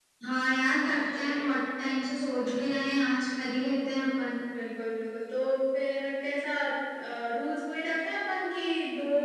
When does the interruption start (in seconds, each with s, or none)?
none